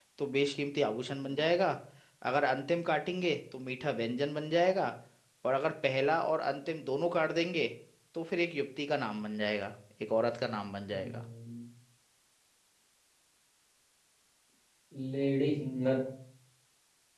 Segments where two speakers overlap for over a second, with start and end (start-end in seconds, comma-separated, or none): none